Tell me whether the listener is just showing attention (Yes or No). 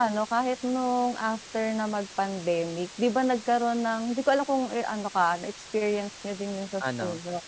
Yes